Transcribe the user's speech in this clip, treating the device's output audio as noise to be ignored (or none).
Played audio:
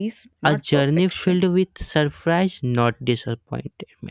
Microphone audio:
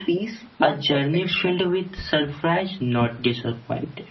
none